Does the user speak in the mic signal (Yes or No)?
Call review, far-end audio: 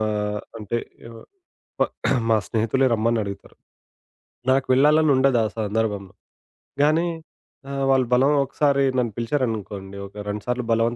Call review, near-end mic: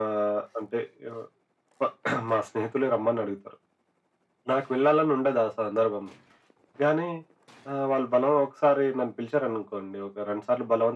No